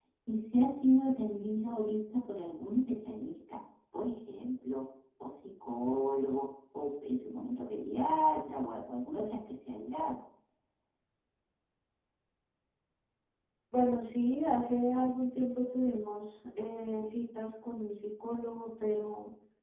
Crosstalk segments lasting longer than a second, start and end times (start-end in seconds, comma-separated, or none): none